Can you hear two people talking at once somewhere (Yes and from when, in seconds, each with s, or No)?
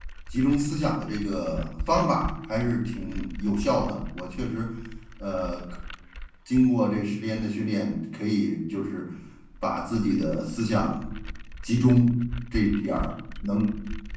No